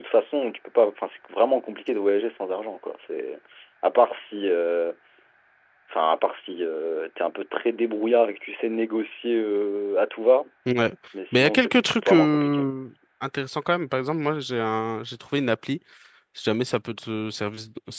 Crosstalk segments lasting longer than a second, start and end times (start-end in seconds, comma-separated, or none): 11.3-12.7